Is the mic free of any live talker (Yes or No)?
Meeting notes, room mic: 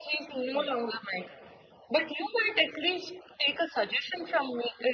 No